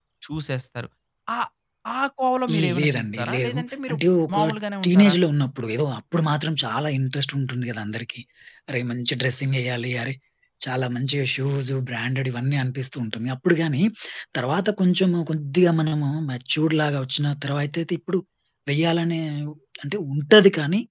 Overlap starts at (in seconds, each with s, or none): 2.5 s